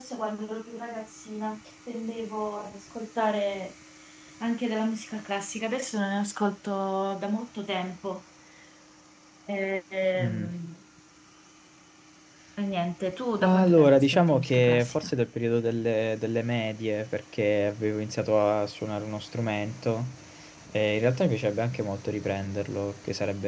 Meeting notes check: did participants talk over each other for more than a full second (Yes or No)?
Yes